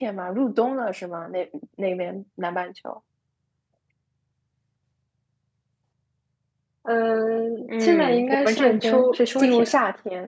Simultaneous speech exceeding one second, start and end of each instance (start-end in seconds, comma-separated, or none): 7.8-9.8